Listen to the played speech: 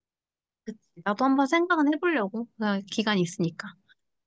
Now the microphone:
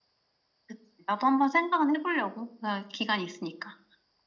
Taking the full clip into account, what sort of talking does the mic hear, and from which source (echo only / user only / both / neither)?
echo only